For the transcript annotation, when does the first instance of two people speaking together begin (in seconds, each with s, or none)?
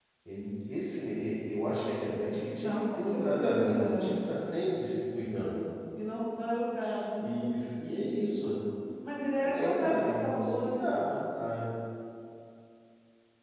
2.6 s